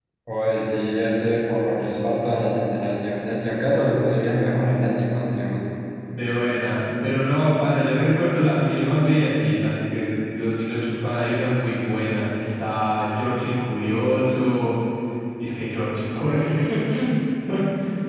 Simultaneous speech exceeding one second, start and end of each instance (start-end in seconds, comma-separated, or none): none